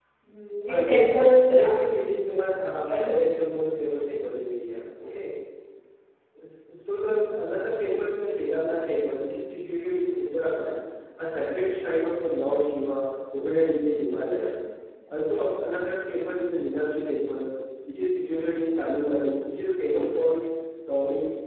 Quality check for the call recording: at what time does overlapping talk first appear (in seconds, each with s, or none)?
0.7 s